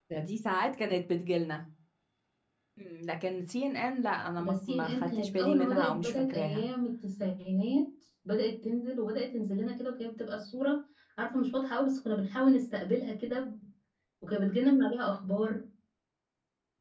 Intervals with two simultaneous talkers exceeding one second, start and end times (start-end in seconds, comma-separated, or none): 4.4-6.6